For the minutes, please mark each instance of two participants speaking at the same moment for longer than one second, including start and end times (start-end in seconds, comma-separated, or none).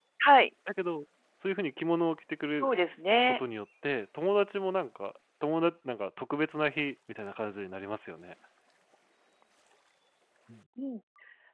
none